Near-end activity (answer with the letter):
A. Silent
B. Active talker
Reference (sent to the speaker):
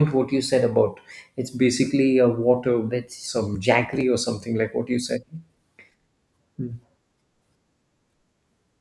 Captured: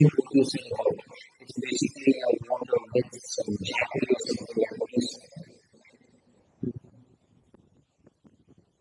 A